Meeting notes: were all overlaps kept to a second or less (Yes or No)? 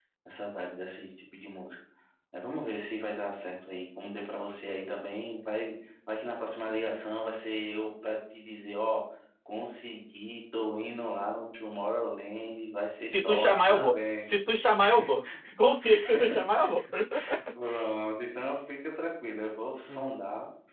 No